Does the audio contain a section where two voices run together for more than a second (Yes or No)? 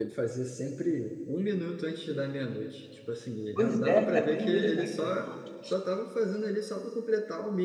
Yes